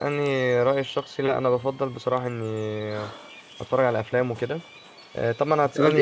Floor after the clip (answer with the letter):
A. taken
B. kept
A